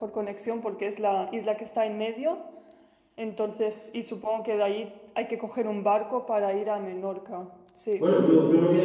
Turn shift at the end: Yes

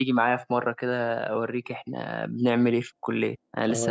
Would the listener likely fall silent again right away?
No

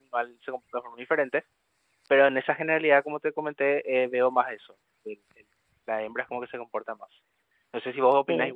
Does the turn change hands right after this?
Yes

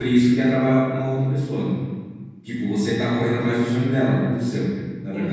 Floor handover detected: Yes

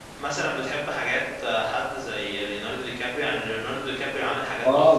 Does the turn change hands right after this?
Yes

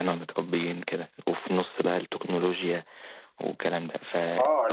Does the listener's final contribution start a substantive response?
Yes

